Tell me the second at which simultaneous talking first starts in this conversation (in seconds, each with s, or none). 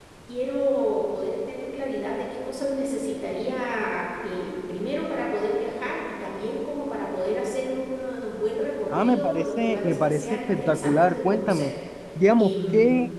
8.9 s